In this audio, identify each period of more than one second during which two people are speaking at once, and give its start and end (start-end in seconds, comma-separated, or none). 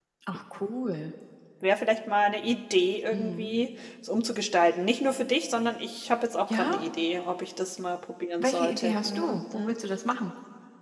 8.4-9.8